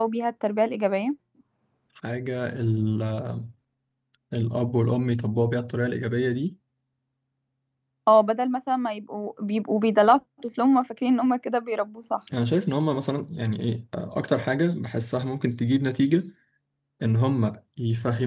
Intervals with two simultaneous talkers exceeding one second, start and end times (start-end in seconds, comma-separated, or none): none